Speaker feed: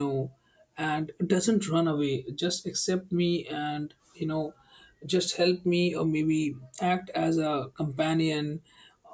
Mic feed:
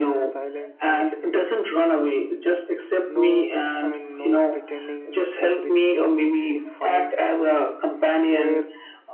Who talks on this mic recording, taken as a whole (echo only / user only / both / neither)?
both